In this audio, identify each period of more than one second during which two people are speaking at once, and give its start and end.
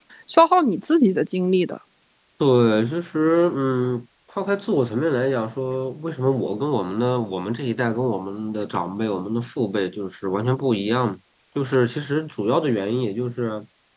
none

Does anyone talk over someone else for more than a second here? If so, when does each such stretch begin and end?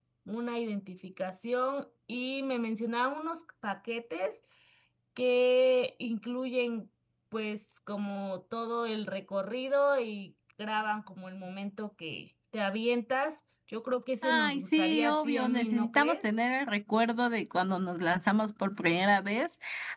14.2-16.2

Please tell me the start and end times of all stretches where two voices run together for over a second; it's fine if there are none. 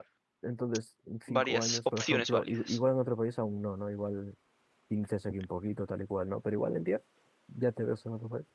1.3-2.8

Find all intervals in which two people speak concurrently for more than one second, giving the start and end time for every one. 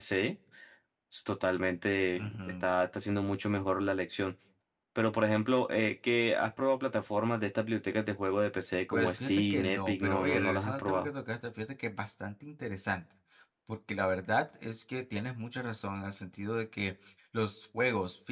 8.9-11.1

